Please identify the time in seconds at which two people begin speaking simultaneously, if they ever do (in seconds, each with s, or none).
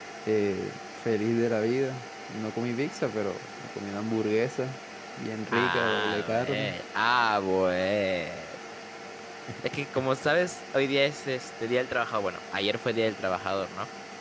5.5 s